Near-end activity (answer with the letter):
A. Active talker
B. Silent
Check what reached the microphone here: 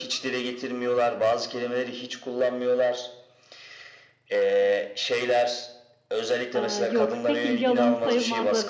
A